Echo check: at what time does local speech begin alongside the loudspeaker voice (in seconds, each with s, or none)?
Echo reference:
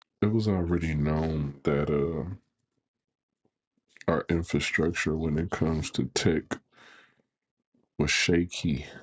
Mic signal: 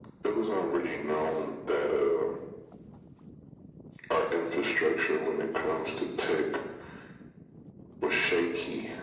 none